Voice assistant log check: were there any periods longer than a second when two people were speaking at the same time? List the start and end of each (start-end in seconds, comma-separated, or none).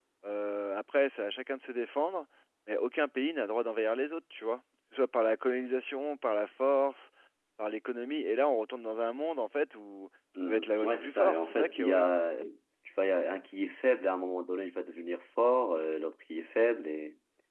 10.5-12.2